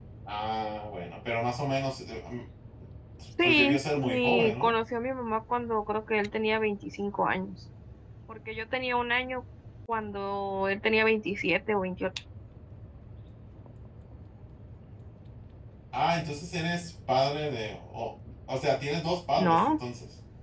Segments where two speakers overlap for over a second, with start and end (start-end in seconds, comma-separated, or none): 3.4-4.7